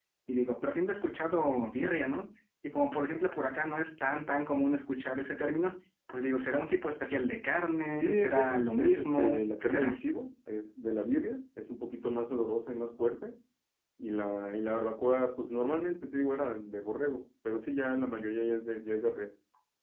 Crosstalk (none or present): present